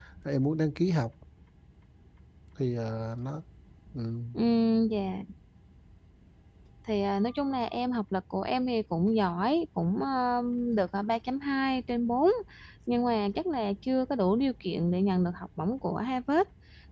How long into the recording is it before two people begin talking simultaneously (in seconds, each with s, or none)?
none